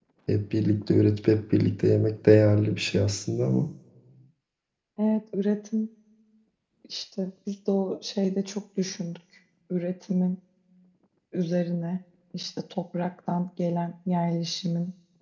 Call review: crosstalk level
none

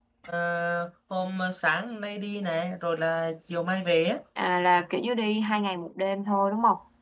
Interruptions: none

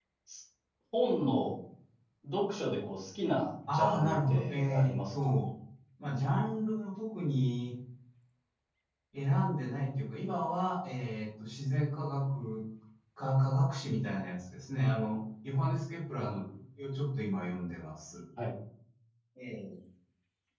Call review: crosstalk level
present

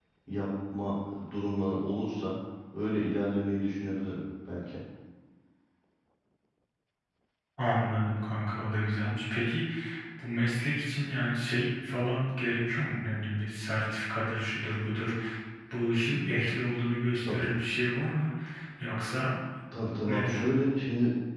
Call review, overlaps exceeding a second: none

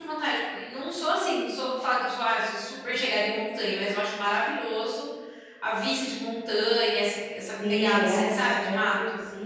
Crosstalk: present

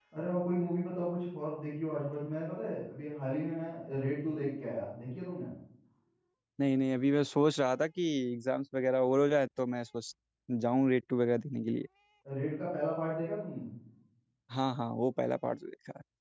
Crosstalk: none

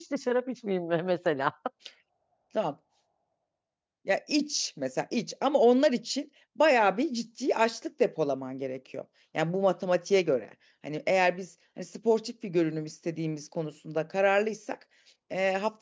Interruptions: none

